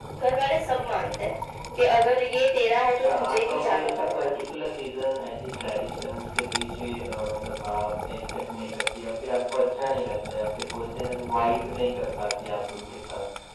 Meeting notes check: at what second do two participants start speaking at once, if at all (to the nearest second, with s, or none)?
3 s